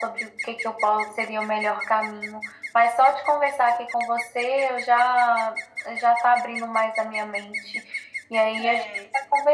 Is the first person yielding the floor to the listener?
No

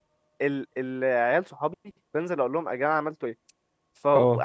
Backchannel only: Yes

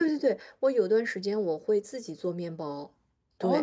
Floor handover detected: Yes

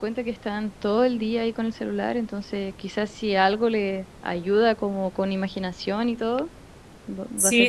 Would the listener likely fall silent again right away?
No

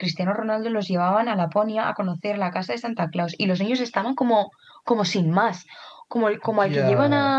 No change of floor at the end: Yes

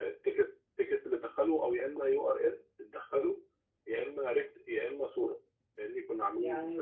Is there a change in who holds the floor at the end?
Yes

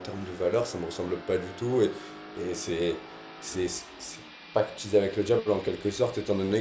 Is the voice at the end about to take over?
No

